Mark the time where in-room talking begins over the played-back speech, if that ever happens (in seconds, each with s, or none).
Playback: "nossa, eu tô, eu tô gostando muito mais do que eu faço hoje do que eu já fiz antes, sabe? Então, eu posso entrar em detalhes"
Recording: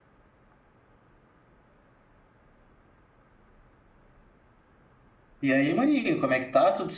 5.4 s